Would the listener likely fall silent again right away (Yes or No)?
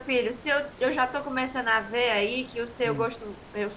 Yes